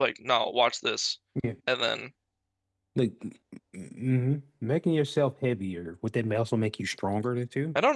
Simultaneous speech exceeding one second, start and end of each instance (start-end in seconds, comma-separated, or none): none